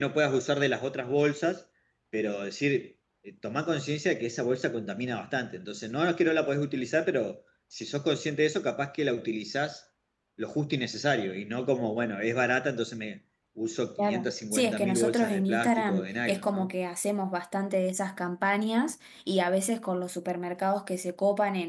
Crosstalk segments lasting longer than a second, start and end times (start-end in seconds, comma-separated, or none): 14.0-16.7